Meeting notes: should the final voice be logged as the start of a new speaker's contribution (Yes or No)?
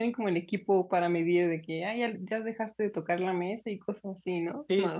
Yes